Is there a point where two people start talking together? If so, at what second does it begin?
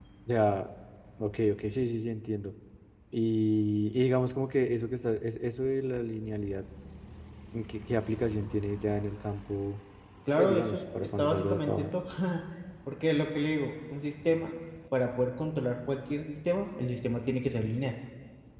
10.4 s

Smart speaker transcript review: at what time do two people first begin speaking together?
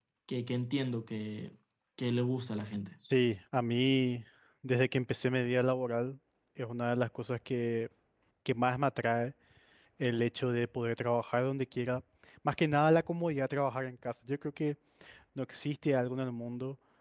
none

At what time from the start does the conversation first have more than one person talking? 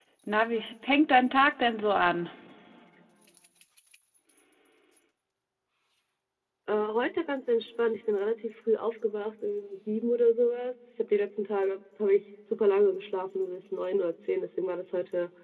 none

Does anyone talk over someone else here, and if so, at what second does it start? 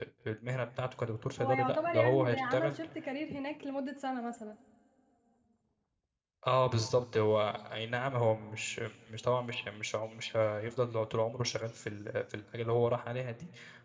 1.4 s

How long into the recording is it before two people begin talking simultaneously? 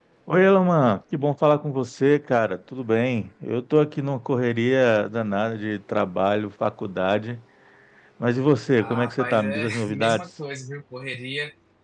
8.8 s

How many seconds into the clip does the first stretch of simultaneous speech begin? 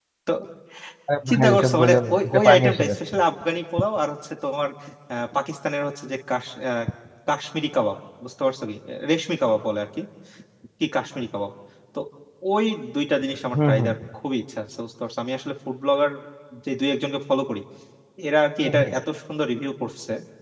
1.3 s

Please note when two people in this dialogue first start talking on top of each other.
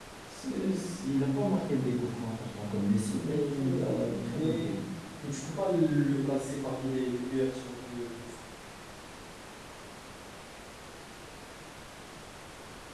3.2 s

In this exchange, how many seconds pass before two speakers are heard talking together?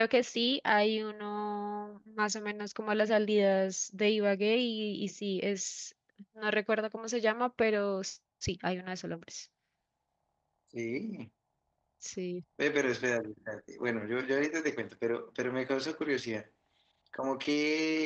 none

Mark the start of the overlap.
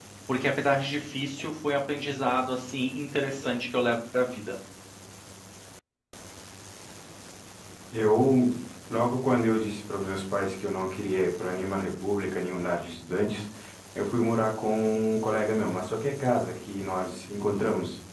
none

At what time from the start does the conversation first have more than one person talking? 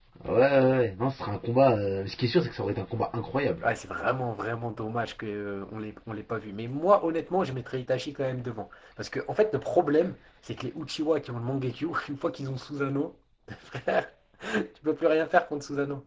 none

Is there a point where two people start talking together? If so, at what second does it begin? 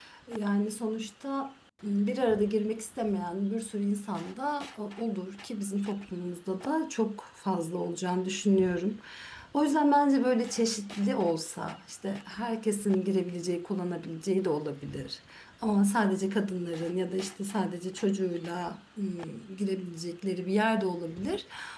none

